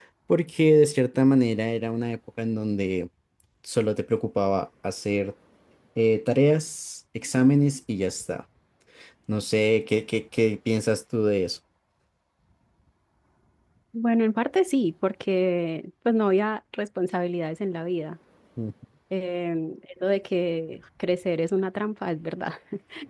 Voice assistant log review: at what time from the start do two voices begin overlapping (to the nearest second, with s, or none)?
none